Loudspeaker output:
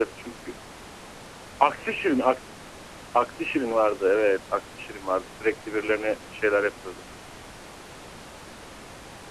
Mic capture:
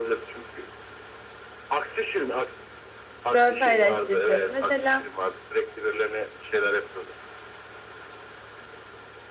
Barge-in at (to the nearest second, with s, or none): 3 s